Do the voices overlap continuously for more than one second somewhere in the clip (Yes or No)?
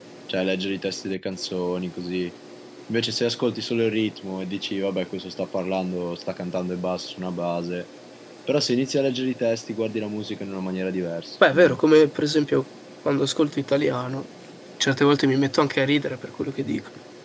No